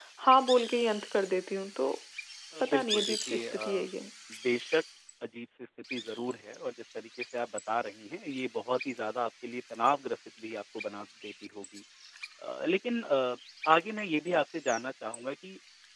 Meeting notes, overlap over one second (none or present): present